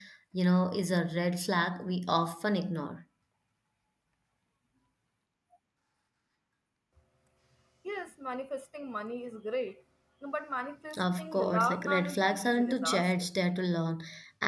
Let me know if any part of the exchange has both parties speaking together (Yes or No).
Yes